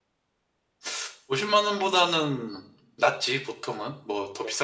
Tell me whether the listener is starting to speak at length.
No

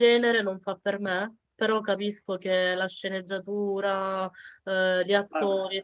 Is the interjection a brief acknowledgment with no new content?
No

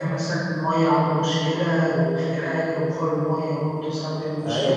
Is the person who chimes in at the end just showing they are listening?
No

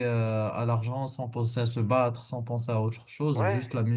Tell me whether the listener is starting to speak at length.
No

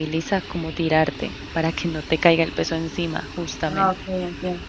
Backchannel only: No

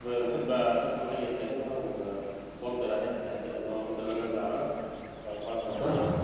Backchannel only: No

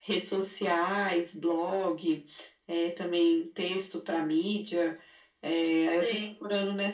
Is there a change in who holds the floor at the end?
No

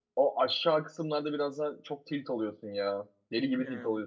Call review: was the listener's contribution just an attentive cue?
Yes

